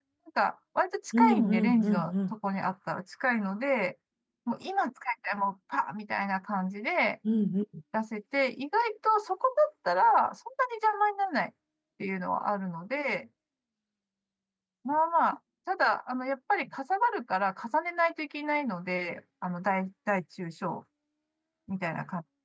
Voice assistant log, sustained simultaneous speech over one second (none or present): present